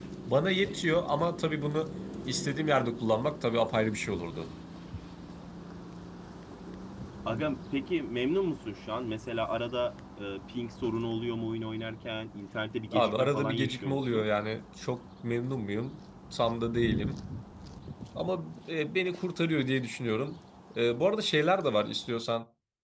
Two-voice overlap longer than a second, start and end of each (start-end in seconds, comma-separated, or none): 12.9-14.3